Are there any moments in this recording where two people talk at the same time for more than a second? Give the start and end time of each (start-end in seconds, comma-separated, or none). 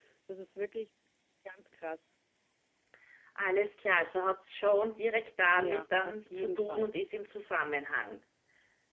5.6-6.9